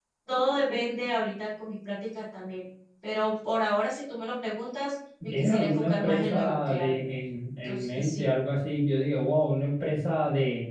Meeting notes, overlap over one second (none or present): present